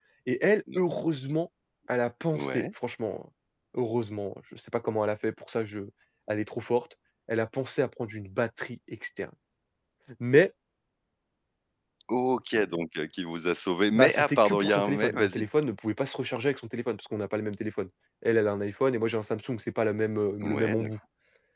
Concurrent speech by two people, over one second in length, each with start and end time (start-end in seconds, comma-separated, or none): 13.9-15.5